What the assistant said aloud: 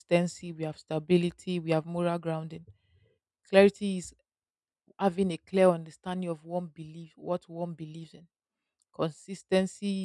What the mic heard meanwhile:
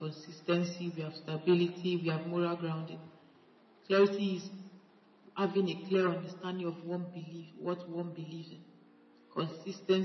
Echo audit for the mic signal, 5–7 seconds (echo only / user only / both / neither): echo only